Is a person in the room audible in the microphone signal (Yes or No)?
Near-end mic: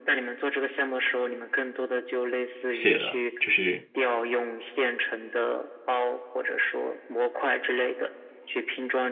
Yes